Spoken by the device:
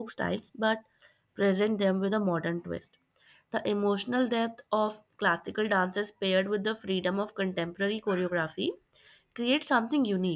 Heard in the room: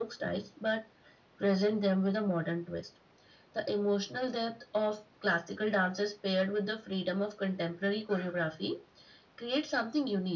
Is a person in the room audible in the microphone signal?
No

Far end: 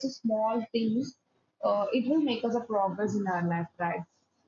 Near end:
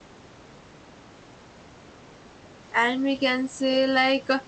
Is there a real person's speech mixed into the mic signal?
Yes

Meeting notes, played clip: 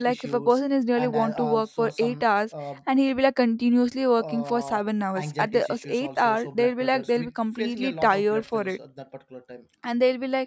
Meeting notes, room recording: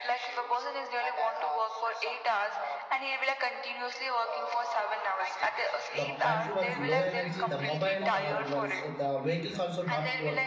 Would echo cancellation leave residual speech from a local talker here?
Yes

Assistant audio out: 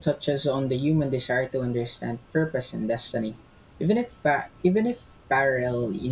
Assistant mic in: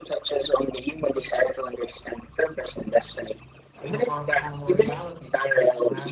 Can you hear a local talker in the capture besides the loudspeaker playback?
Yes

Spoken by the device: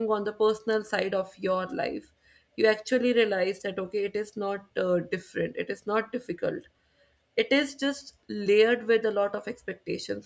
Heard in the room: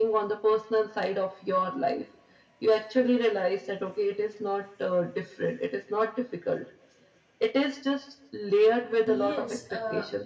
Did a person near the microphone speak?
Yes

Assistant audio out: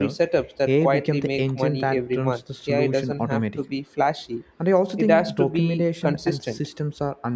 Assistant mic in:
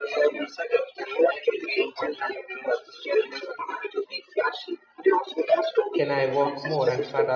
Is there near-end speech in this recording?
Yes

